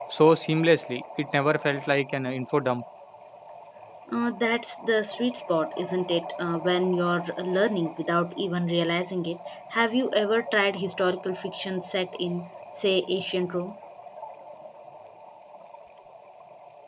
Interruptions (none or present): none